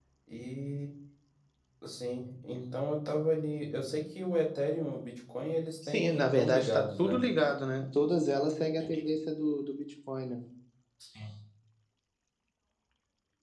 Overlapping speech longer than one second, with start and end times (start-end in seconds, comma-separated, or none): 5.9-7.2